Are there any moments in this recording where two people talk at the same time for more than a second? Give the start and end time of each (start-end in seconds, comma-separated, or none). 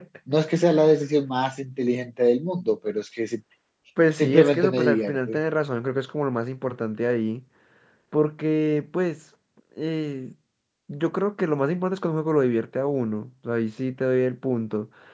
4.2-5.4